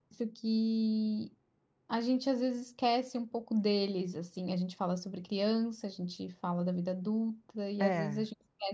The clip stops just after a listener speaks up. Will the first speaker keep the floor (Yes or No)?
Yes